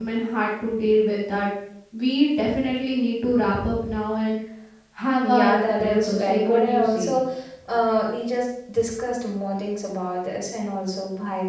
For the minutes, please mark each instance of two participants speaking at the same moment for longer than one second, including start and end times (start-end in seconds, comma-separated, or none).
5.2-7.2